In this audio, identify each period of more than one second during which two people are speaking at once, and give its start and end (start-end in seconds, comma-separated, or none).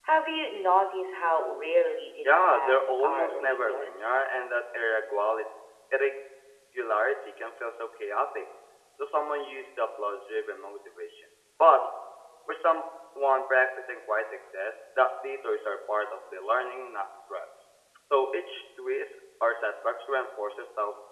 2.2-3.9